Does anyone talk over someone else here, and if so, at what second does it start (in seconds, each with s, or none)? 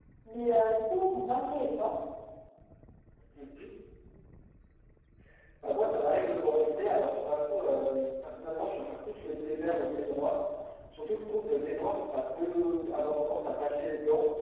none